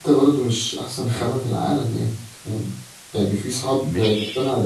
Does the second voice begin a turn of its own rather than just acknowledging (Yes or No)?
No